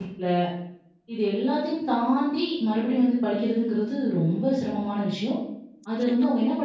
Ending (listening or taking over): listening